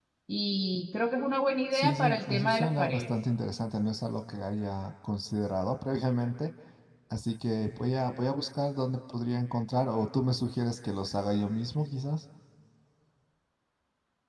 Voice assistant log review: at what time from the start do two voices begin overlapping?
1.7 s

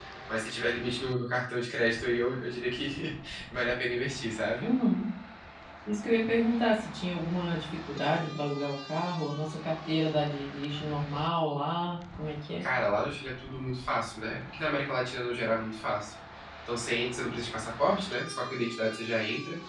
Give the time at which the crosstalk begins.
none

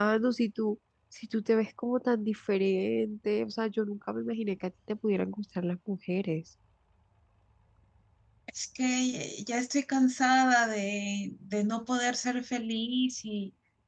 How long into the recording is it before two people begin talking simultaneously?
none

